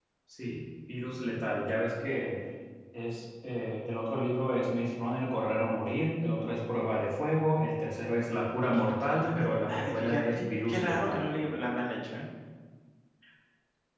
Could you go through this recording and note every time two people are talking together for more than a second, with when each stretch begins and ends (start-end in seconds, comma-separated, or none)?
8.6-11.2